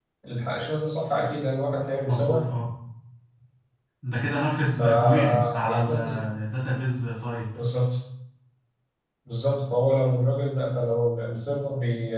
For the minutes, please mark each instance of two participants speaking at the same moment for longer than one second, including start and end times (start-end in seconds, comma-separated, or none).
4.8-6.2